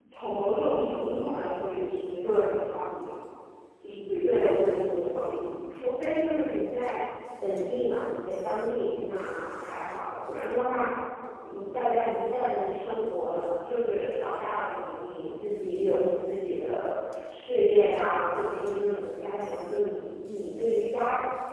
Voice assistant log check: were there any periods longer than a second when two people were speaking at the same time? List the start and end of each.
4.2-5.6

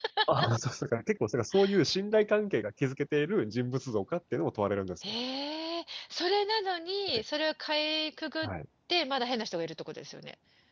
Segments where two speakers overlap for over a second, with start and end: none

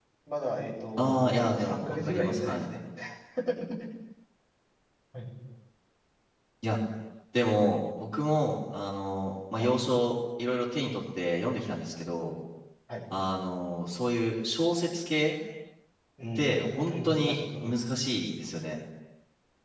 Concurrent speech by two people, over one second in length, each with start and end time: 1.0-2.6, 16.4-17.7

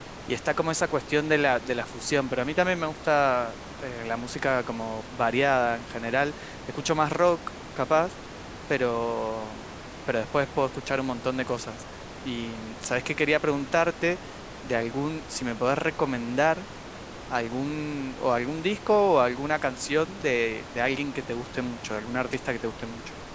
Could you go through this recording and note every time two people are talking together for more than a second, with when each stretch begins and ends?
none

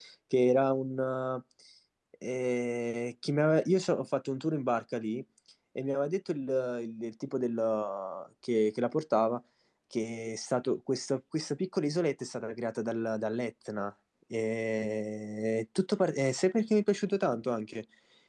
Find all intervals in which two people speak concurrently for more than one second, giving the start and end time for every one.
none

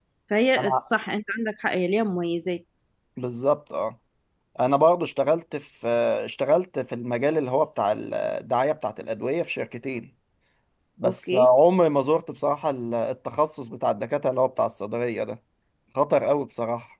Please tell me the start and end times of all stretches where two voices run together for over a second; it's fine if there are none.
none

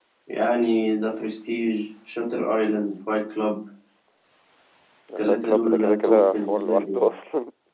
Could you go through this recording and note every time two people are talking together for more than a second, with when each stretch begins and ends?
5.3-7.1

